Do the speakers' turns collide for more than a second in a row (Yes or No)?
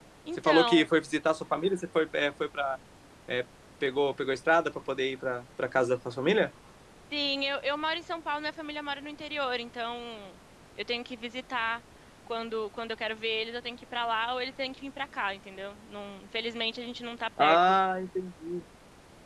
No